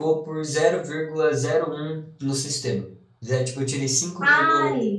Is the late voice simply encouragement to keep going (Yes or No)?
Yes